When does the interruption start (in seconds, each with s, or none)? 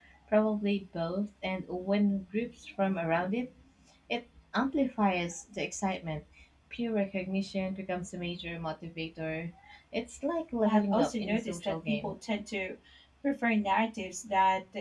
10.6 s